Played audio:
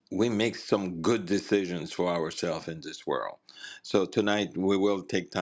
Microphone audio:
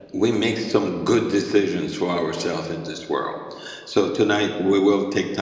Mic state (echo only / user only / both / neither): echo only